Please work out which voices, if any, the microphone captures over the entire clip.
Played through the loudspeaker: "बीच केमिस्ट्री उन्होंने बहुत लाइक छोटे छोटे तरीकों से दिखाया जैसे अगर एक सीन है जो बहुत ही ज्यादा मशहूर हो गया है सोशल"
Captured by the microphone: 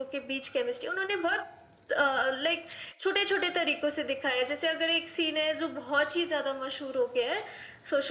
echo only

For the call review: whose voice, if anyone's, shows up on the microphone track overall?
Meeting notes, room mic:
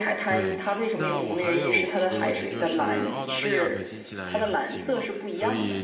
both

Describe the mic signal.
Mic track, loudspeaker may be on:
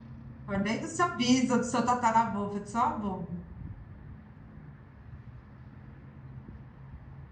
user only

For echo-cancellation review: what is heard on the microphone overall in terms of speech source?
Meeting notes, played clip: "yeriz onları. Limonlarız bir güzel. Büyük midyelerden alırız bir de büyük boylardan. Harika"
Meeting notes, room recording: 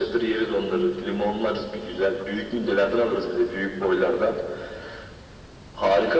echo only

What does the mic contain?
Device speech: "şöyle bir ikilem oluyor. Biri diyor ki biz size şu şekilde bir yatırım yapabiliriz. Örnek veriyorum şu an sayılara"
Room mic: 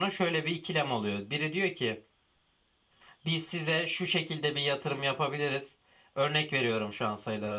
echo only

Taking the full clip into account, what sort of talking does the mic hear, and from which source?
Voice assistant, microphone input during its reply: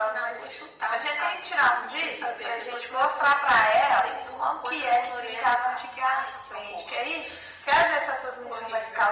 echo only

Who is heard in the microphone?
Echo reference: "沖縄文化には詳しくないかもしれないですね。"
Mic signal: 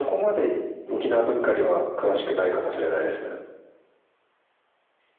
both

